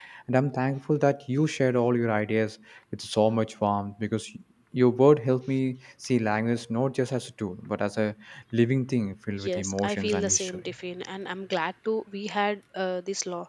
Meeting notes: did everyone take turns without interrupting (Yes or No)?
No